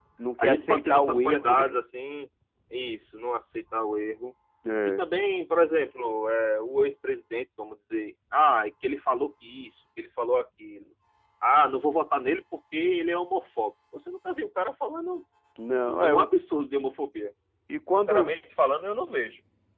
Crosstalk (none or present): present